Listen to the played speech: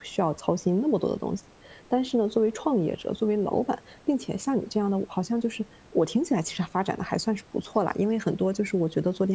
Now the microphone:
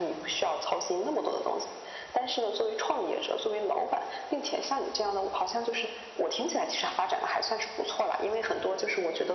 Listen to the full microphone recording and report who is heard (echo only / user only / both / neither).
echo only